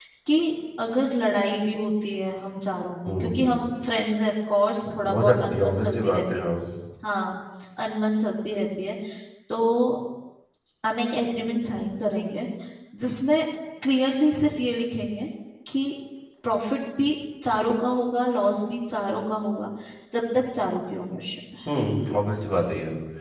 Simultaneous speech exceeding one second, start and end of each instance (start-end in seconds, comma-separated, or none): 5.1-6.5